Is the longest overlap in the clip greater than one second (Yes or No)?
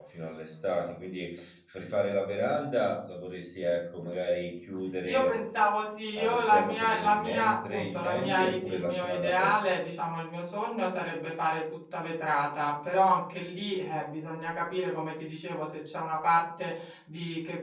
Yes